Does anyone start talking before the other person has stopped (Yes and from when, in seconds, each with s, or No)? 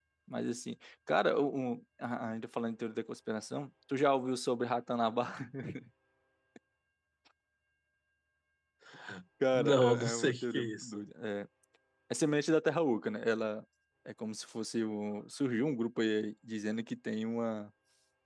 Yes, from 9.5 s